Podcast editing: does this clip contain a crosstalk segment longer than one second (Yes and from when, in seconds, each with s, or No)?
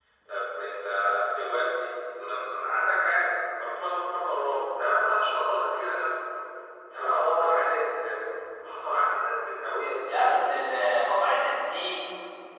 No